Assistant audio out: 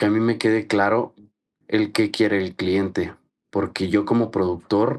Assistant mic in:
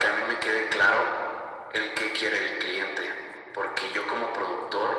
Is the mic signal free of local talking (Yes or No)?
Yes